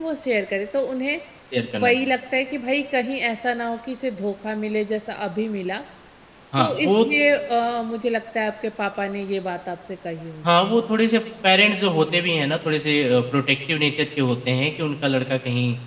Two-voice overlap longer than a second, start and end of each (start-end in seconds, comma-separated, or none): none